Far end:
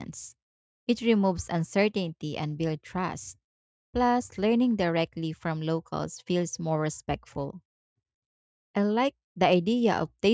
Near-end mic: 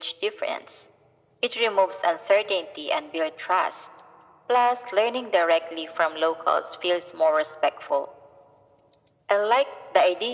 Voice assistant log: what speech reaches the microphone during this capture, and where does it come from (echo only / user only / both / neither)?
echo only